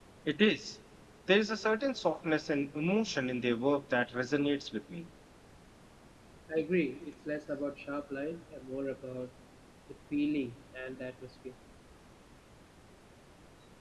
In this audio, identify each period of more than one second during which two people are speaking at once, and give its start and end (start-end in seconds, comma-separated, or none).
none